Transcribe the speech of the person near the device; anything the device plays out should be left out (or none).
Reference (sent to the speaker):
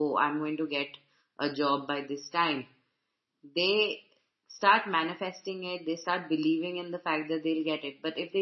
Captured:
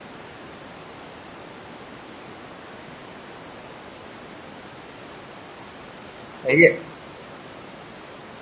yeah,